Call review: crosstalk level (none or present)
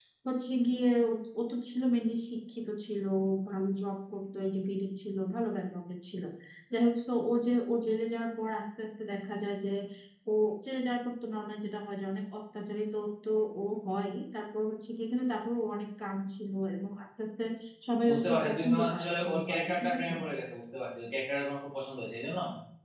present